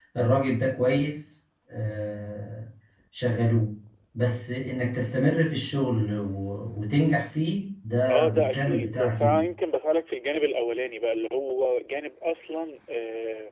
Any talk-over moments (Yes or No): Yes